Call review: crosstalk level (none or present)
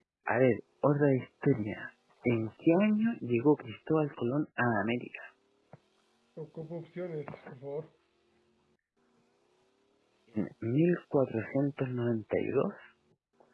none